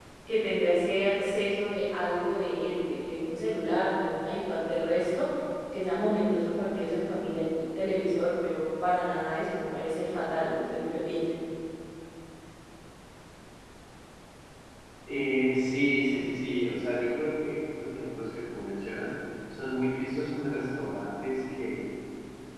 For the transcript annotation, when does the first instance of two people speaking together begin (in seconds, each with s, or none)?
none